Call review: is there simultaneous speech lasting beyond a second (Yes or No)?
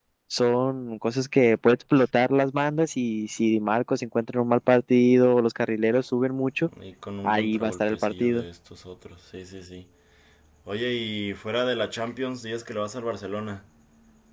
Yes